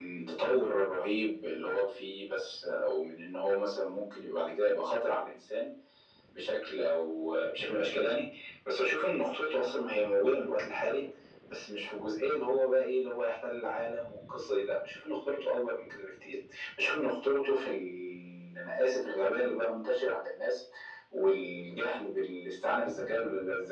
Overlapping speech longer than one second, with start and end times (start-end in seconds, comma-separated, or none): none